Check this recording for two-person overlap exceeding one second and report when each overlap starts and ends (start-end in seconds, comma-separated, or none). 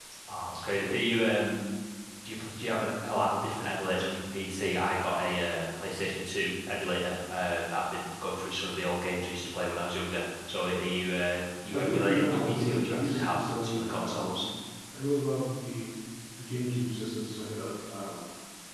11.7-14.5